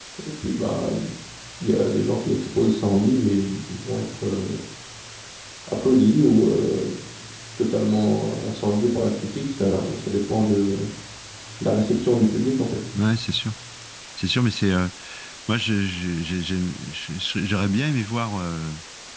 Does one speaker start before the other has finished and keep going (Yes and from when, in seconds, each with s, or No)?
No